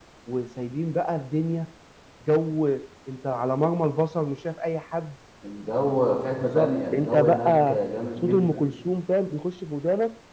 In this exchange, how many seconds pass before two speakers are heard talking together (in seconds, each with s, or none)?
6.4 s